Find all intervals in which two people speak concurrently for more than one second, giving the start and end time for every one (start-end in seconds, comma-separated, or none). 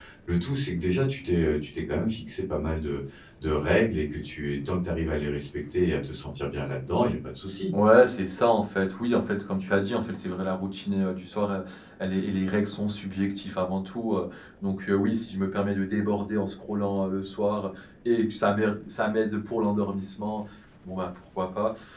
none